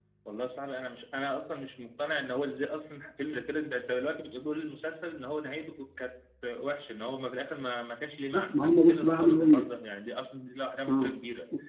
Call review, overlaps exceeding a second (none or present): present